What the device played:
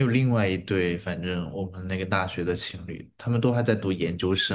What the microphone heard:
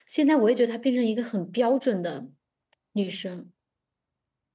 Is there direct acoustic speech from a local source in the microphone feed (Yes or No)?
Yes